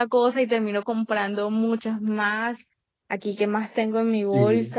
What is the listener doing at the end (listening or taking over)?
listening